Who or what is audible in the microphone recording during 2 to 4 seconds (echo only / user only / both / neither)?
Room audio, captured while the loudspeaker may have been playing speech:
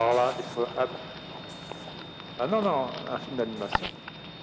echo only